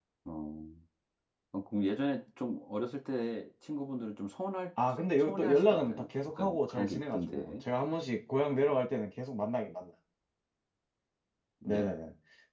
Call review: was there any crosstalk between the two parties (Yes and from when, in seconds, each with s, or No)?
Yes, from 5.2 s